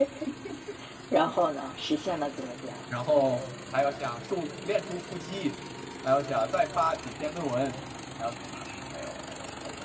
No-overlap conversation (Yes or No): Yes